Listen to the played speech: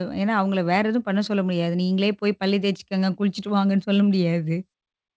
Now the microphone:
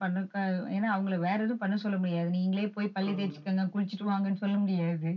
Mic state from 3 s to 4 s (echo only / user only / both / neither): both